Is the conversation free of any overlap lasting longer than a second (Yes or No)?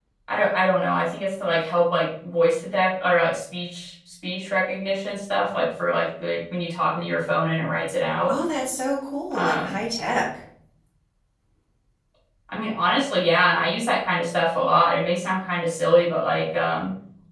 Yes